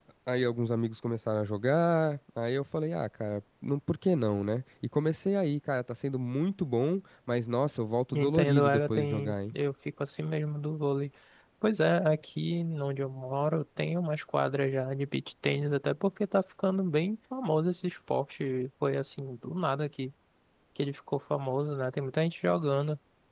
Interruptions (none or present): present